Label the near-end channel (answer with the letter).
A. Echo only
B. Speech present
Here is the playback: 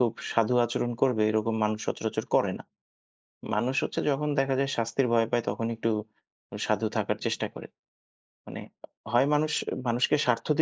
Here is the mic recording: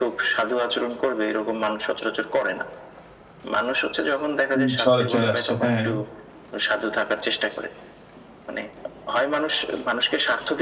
B